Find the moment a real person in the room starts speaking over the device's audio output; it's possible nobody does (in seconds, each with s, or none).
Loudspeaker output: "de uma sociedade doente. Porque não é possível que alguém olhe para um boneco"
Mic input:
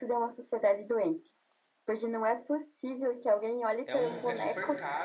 3.9 s